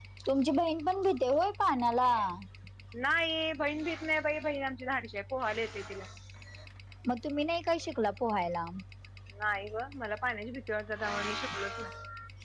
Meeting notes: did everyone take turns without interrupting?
Yes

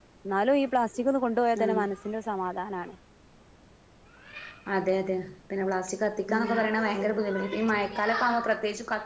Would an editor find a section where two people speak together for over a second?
No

